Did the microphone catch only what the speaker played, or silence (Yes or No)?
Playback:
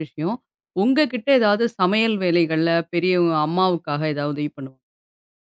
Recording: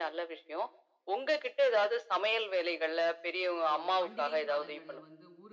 No